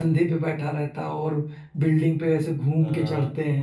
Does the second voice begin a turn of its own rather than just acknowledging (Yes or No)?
Yes